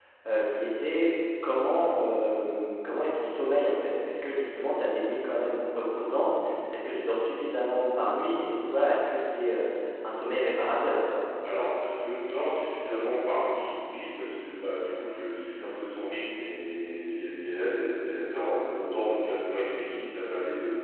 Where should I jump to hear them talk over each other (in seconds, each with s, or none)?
none